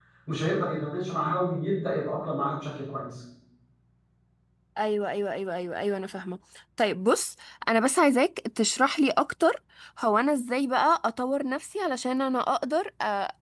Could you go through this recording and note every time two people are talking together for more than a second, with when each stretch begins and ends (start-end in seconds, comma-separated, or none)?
none